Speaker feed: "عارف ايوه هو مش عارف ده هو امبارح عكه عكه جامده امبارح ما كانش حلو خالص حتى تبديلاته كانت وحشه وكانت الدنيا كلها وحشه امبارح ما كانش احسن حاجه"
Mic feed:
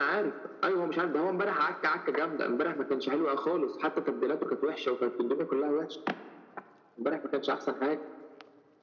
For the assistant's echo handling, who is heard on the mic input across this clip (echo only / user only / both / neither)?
echo only